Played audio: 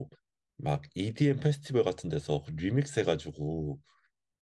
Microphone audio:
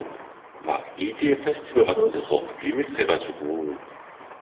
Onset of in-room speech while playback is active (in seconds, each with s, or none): 1.8 s